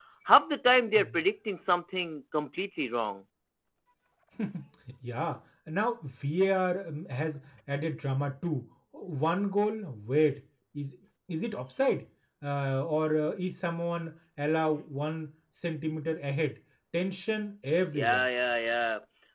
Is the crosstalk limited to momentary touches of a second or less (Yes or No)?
Yes